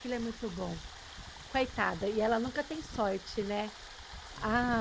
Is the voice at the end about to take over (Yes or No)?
No